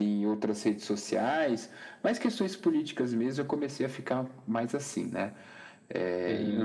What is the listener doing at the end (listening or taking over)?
taking over